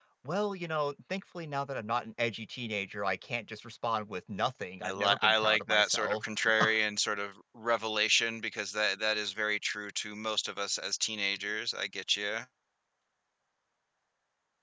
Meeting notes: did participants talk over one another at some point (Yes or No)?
Yes